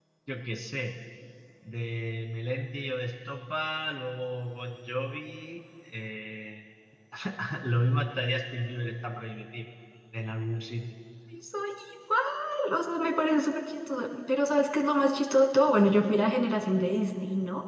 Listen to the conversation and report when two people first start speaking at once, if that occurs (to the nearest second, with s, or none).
none